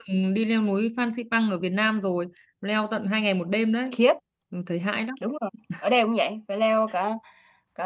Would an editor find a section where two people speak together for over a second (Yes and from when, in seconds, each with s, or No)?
No